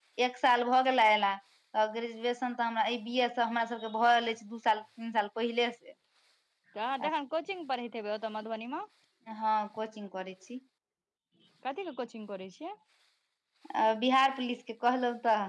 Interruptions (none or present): none